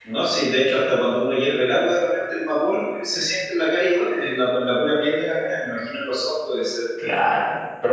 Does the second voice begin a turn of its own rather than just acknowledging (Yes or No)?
Yes